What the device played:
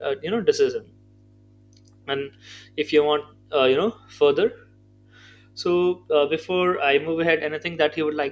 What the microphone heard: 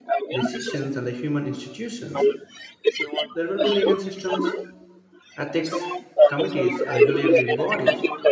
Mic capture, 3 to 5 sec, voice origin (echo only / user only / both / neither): both